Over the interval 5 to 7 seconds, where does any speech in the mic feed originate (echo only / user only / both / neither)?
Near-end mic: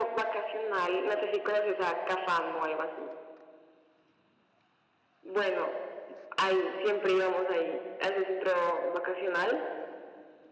echo only